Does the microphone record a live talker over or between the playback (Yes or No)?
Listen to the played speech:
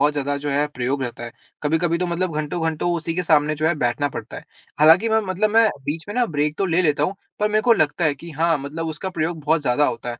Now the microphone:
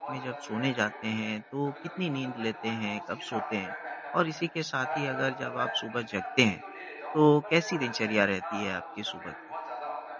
Yes